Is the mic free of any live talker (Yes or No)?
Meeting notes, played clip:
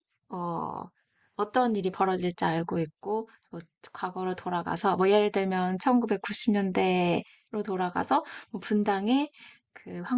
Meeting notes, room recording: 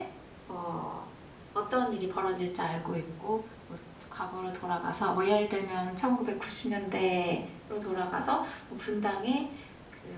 Yes